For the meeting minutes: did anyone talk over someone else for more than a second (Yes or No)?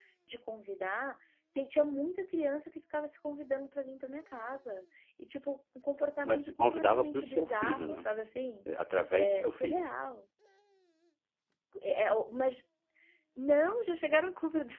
Yes